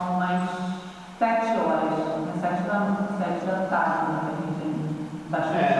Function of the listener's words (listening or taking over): taking over